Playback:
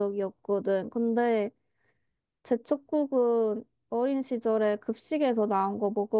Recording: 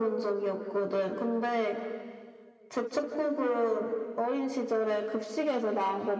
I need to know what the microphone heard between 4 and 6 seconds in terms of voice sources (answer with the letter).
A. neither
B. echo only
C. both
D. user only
B